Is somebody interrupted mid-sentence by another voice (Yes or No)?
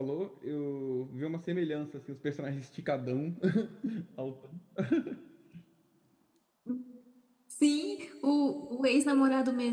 No